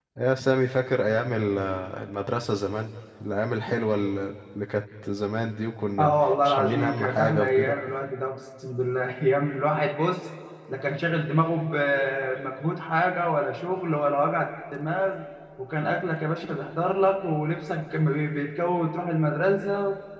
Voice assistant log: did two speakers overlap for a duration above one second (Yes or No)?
Yes